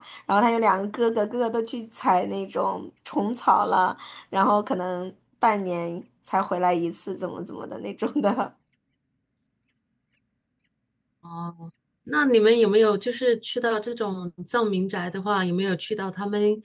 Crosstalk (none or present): none